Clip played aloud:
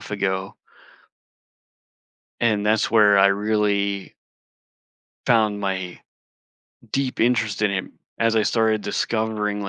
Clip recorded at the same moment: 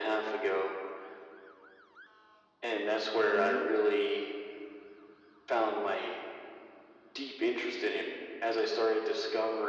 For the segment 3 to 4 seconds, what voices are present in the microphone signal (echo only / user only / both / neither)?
both